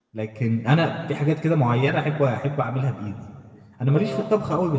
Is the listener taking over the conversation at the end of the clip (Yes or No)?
No